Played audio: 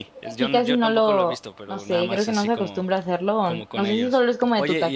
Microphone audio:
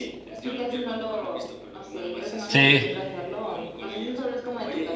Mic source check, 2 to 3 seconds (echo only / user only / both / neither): both